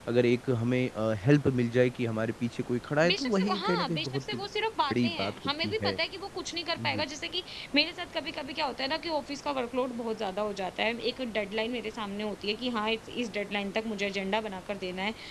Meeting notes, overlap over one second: present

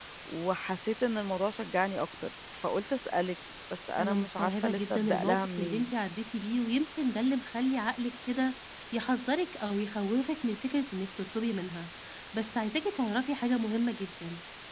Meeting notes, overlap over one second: present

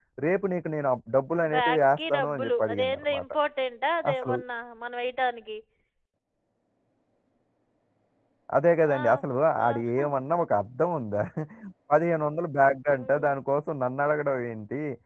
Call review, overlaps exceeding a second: present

